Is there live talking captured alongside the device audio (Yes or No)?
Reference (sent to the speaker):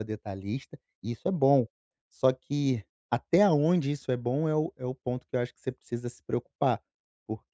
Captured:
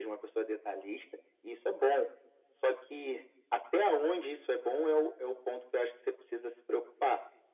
No